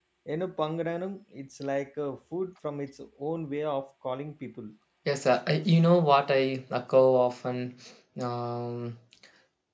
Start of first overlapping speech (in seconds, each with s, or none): none